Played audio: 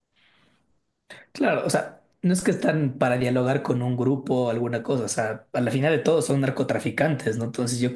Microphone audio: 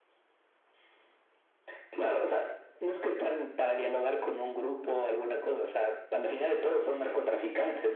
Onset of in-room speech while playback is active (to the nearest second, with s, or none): none